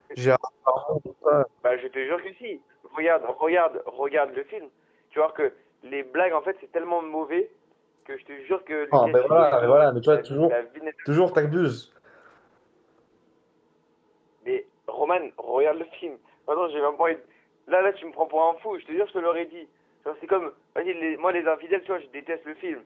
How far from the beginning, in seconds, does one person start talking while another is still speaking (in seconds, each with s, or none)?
8.9 s